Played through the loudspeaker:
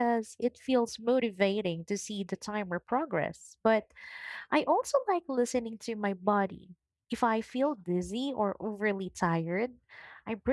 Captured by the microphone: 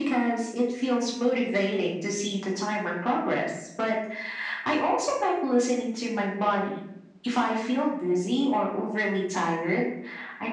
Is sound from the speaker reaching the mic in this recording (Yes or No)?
Yes